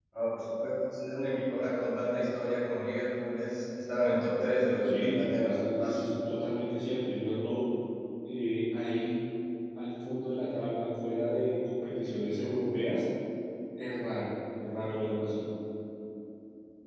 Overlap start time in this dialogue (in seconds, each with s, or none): 4.8 s